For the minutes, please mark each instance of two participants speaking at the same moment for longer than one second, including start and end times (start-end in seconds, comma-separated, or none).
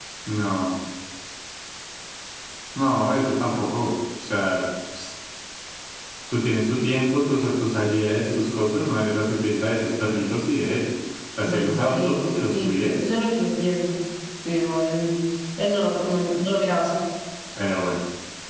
11.4-12.8